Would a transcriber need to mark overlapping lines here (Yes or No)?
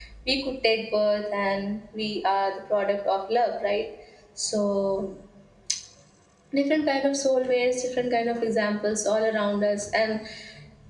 No